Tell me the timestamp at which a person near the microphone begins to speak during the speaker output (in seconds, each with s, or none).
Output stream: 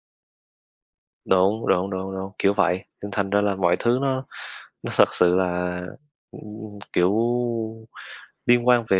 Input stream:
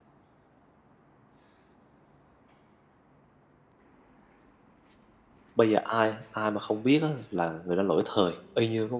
5.5 s